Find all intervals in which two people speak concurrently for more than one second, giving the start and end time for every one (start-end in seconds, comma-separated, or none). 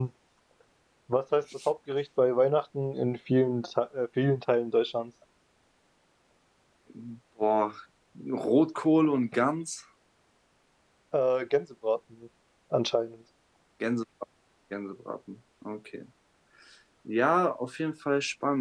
none